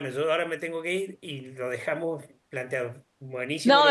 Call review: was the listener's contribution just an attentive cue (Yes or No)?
No